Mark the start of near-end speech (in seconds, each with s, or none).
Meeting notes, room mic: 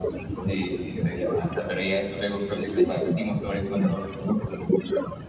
0.5 s